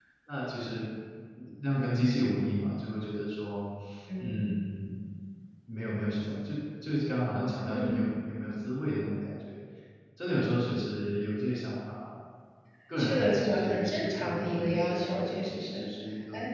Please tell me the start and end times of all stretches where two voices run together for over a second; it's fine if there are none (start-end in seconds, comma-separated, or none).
13.0-15.8